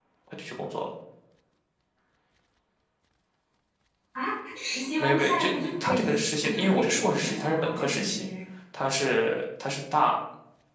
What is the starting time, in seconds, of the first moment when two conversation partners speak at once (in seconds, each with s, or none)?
5.0 s